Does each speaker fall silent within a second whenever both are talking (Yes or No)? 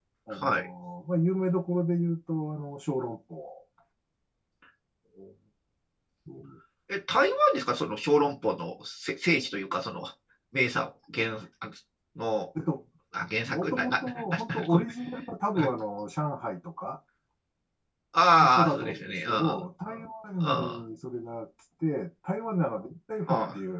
No